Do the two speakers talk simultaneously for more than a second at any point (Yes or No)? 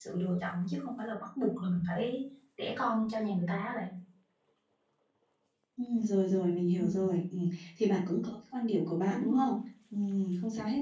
No